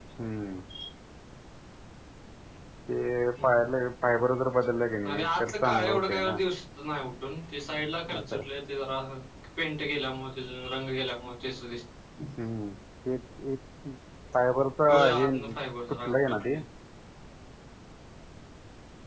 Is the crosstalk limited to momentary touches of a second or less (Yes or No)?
No